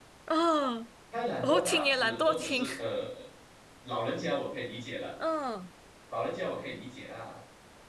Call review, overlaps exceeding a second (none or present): present